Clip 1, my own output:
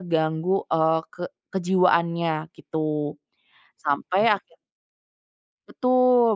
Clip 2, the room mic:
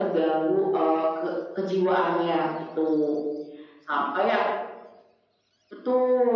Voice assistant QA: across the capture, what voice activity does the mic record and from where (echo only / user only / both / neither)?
echo only